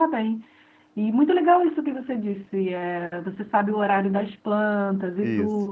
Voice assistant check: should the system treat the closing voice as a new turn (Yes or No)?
No